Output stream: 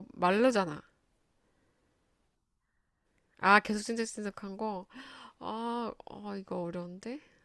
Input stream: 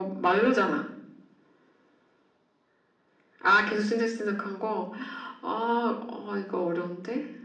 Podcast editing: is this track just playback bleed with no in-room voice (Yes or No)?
Yes